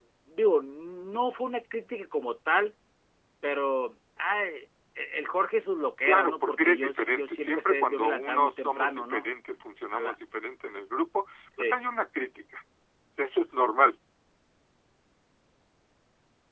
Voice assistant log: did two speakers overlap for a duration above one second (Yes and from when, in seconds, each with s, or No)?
Yes, from 6.0 s